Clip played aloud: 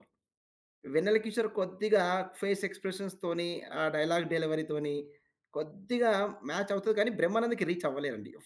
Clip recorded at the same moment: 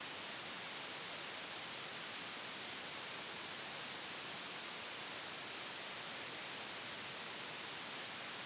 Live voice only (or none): none